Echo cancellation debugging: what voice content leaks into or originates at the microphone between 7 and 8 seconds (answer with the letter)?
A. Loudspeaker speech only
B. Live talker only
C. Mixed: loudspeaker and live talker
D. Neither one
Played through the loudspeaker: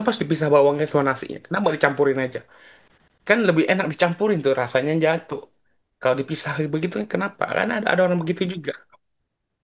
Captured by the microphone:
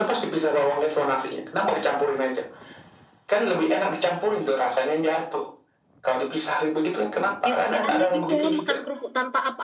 C